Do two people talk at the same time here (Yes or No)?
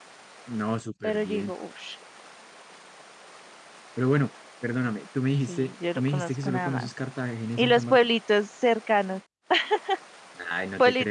Yes